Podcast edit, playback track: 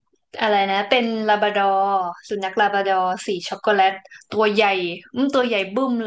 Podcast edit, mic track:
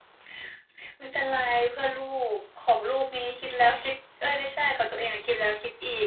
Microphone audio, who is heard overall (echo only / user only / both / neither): user only